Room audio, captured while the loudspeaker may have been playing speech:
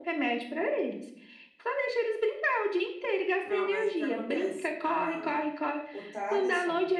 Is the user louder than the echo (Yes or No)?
No